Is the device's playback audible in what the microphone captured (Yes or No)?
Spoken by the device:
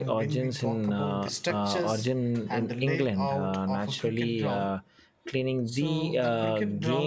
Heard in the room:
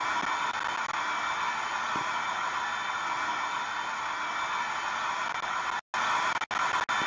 No